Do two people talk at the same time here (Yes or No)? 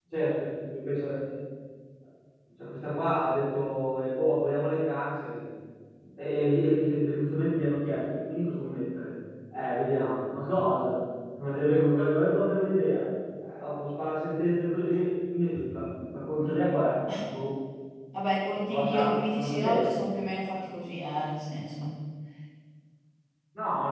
Yes